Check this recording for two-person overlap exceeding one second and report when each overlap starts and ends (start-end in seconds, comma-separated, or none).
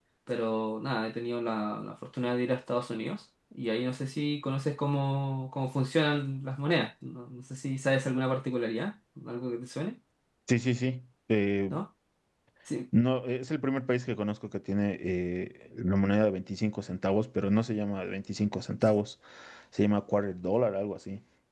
none